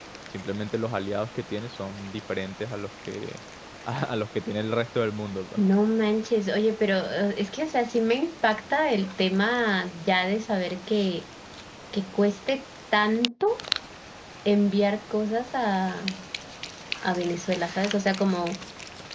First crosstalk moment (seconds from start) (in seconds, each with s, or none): none